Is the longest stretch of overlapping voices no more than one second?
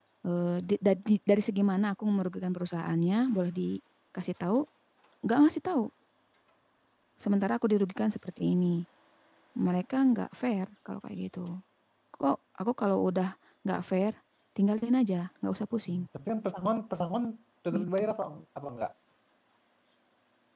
Yes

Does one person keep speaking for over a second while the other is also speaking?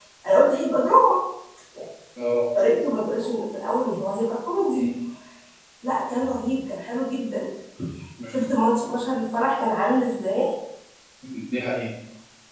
No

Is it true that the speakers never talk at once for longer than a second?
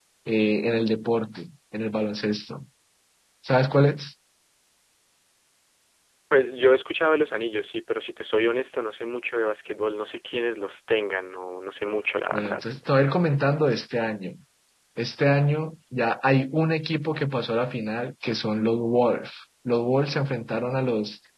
Yes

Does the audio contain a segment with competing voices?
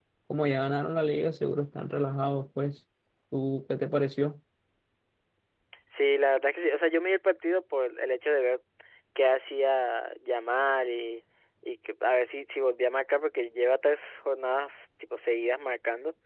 No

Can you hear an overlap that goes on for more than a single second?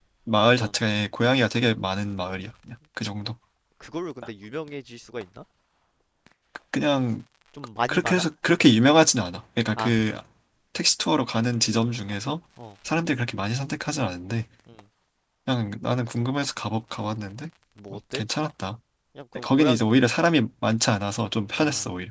No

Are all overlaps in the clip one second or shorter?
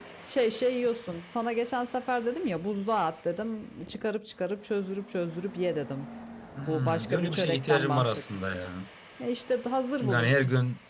No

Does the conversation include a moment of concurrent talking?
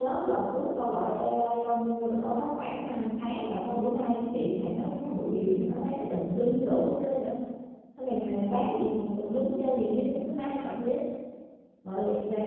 No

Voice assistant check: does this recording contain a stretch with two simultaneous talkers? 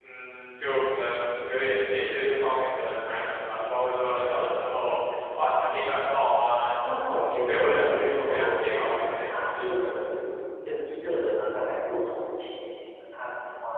Yes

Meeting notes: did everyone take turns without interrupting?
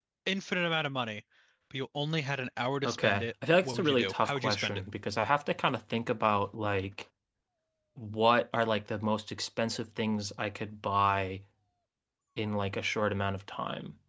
No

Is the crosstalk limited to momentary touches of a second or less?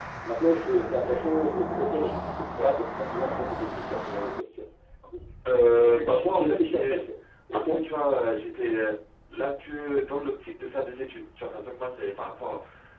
No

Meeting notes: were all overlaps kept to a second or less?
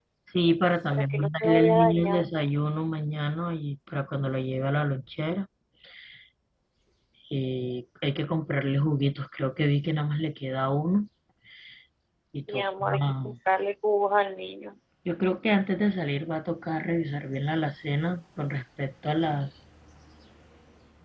No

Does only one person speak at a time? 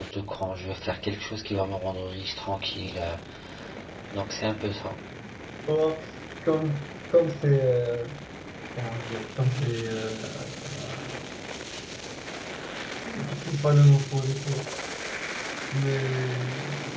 Yes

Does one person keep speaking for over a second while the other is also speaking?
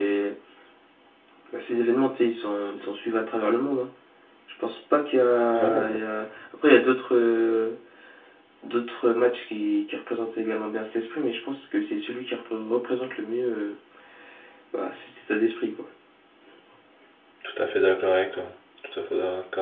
No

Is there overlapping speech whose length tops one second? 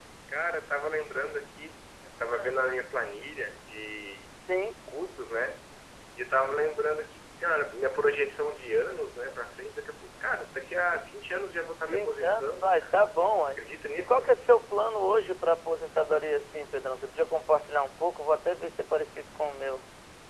Yes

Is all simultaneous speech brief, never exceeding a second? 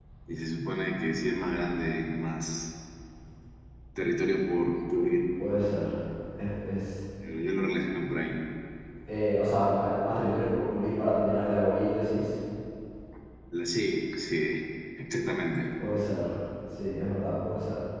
Yes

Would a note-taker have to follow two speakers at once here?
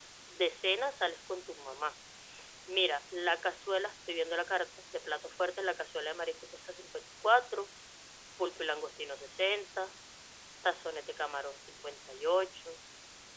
No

